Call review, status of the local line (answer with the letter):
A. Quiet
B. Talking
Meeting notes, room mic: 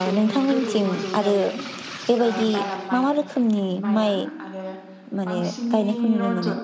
B